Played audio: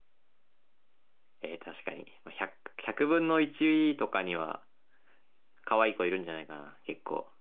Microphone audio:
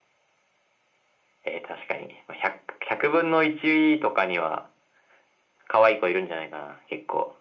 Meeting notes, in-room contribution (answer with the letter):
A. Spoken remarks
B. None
B